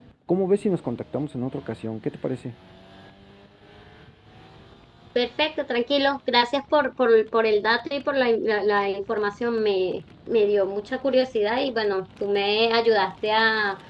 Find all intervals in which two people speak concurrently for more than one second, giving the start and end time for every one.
none

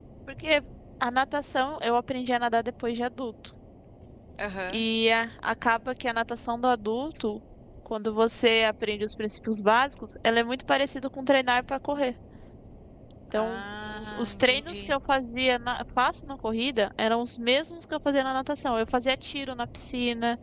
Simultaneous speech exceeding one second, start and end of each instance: 13.3-14.9

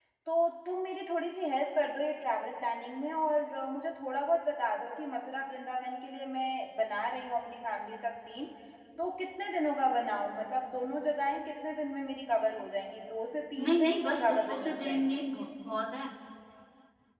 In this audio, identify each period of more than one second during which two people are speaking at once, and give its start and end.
13.6-15.2

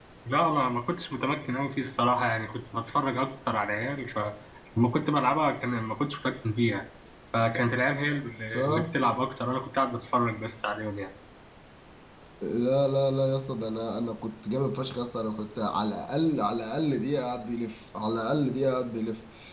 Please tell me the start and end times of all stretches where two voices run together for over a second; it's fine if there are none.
none

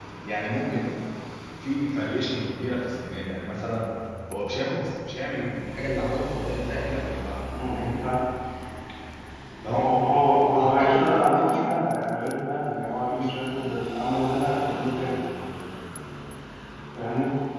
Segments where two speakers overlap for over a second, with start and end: 10.6-11.8

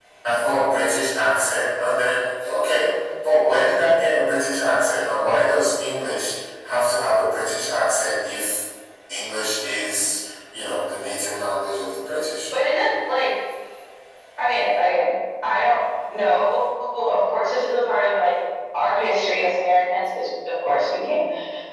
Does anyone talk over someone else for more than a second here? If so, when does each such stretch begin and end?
none

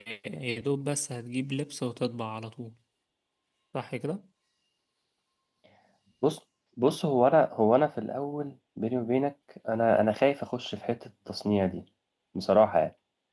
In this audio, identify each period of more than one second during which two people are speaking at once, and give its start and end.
none

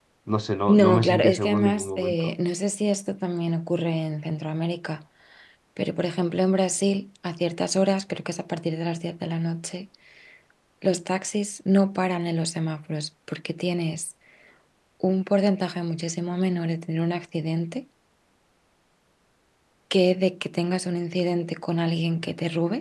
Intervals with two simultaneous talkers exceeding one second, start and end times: 0.7-2.2

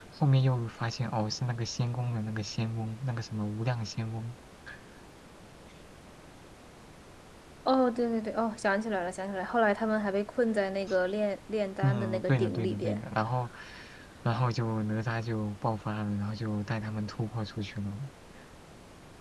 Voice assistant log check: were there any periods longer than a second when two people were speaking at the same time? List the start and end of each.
11.8-13.0

